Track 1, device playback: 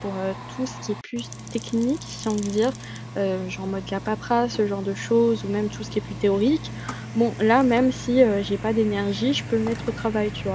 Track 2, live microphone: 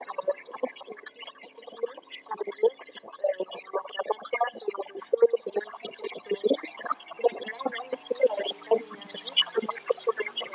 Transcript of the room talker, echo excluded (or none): none